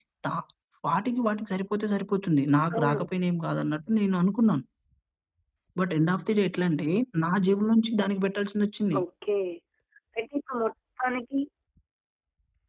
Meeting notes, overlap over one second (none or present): none